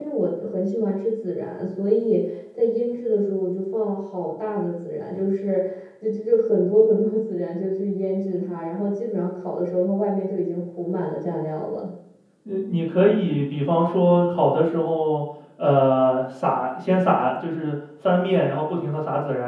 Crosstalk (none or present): none